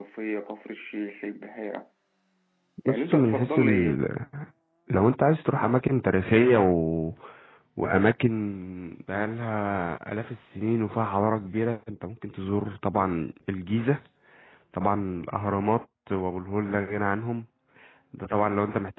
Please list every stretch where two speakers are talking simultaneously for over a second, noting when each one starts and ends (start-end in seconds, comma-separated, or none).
2.9-4.1